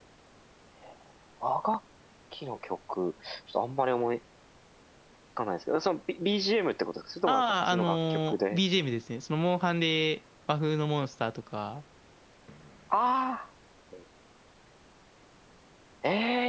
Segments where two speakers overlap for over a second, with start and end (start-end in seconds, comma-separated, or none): 7.3-8.6